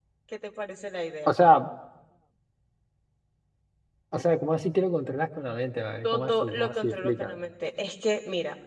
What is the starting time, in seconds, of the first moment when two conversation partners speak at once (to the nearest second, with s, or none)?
6 s